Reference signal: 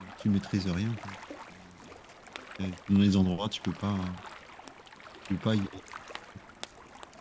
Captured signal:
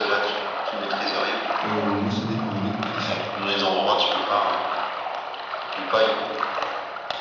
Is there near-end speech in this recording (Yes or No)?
Yes